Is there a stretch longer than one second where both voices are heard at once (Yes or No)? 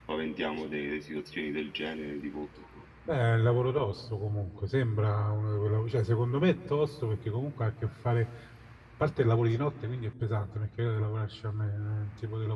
No